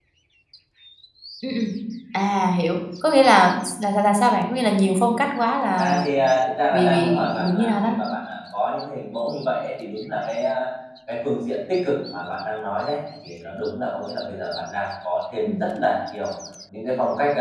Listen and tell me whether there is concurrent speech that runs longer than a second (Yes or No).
Yes